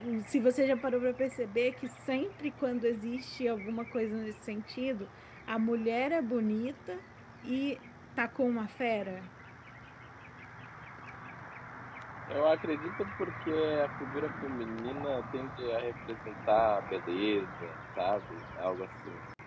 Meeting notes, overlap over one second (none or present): none